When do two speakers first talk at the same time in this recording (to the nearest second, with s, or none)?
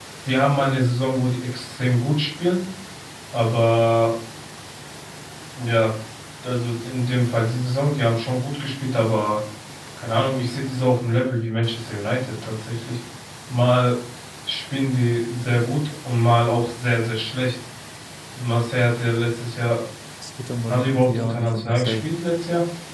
21 s